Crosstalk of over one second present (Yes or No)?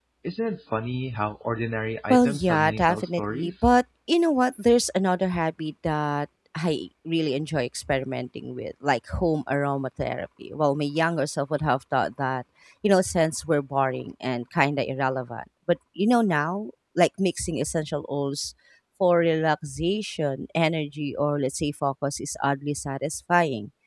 Yes